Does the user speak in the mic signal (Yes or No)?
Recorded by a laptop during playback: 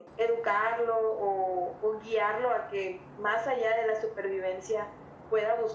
No